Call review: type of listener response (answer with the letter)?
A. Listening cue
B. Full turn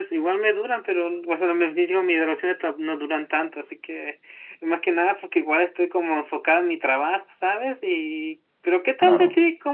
A